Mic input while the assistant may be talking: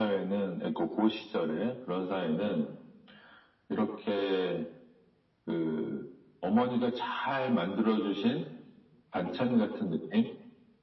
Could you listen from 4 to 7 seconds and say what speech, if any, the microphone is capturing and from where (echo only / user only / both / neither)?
echo only